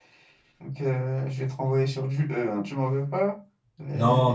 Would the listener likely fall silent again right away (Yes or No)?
No